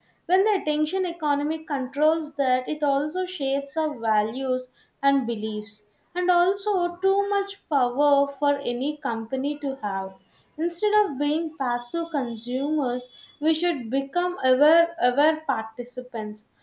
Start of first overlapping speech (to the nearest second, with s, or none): none